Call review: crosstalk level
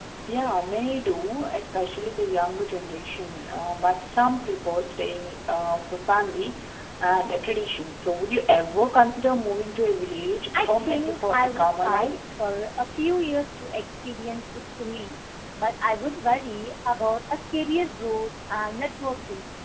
present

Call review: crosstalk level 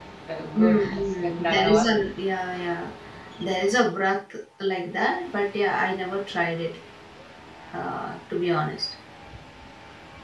present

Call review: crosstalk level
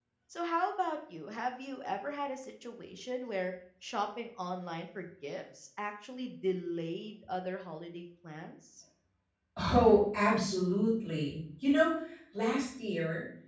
none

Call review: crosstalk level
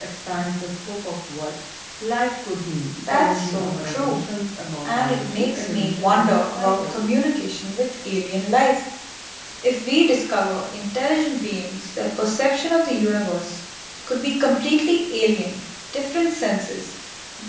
present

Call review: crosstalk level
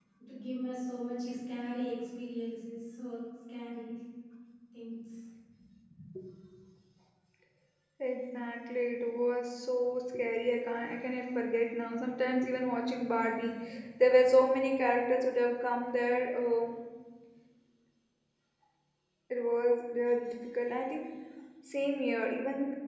none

